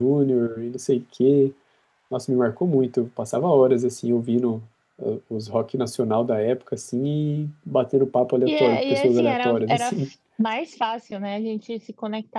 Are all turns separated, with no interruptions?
No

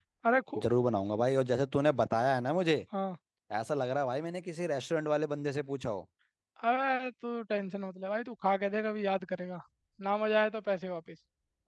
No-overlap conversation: Yes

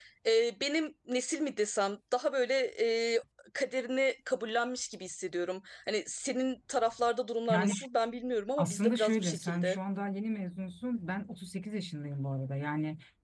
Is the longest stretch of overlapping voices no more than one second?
No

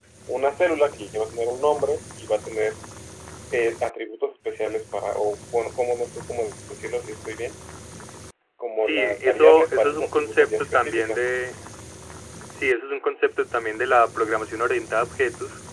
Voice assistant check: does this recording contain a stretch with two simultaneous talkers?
Yes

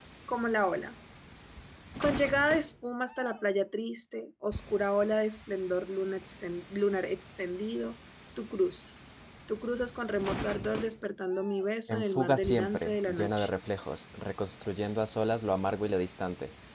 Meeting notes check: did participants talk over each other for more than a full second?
Yes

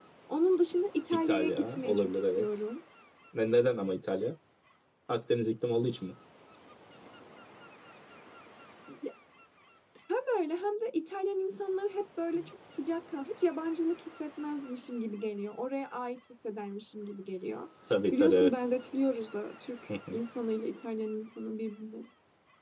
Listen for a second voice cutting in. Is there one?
Yes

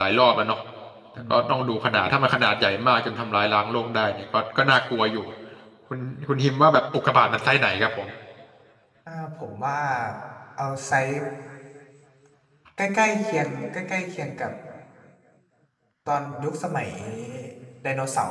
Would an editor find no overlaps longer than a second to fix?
Yes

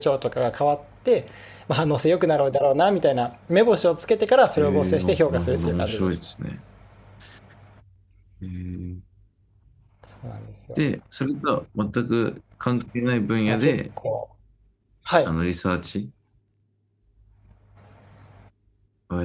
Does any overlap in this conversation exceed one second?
Yes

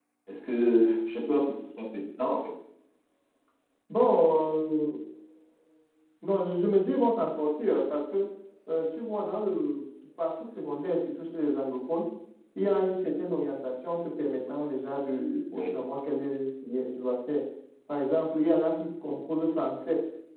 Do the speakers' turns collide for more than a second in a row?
No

